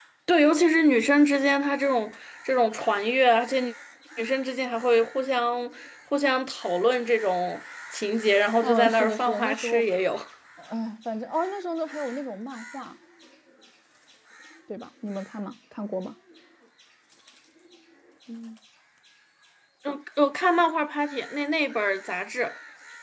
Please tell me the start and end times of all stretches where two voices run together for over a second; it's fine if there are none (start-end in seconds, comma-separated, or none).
8.6-9.8